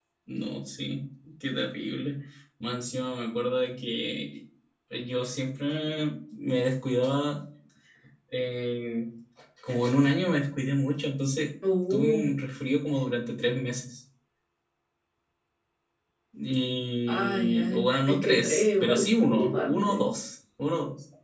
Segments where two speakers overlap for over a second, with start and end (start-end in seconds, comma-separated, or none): 17.1-20.1